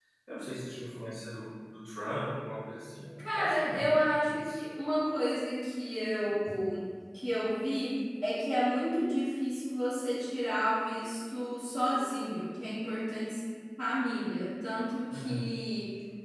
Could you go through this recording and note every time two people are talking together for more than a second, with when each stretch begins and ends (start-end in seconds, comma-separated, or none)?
3.2-4.6